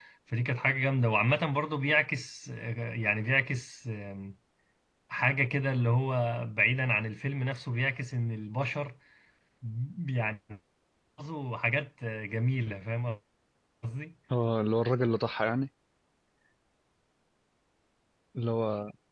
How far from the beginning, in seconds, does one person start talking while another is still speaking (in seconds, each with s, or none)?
none